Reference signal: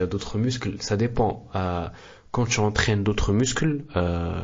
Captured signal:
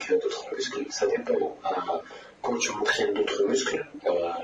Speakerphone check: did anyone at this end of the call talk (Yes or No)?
No